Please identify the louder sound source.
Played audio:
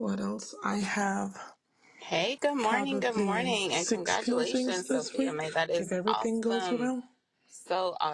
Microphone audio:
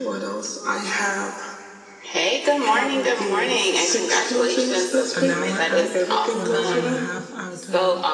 echo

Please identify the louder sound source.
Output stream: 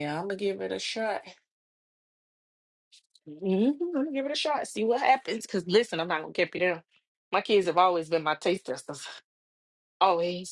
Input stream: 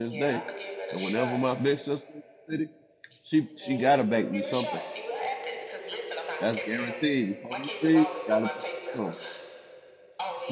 user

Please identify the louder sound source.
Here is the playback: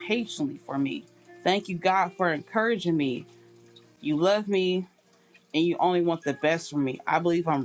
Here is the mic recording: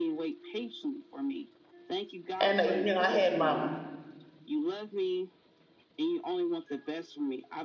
user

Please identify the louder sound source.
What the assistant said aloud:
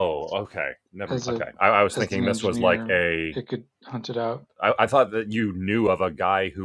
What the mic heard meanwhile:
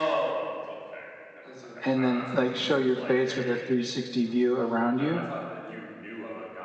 user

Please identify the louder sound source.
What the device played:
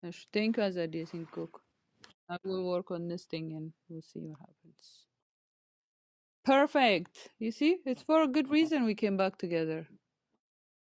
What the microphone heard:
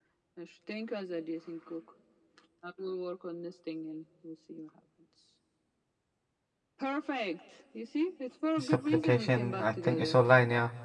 user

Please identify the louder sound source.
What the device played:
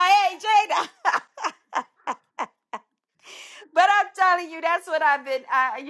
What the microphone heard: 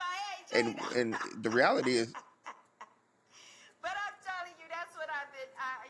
user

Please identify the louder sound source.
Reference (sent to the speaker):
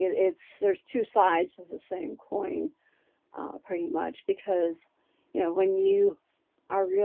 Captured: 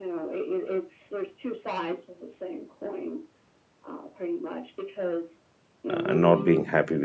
user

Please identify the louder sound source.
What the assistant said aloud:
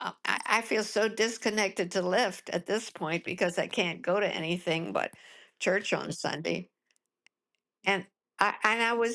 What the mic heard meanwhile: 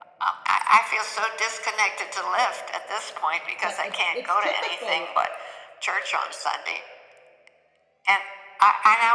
echo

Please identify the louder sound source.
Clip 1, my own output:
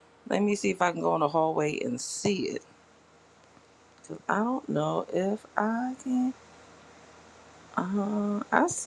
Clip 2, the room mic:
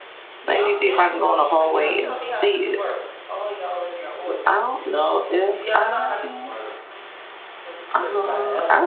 echo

